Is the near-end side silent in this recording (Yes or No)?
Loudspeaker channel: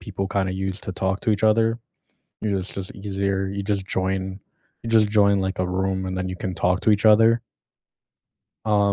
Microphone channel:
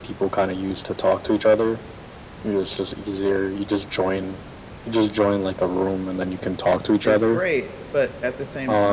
No